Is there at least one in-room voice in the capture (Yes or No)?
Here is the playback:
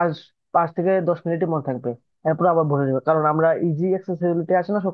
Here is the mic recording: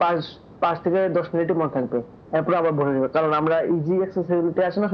No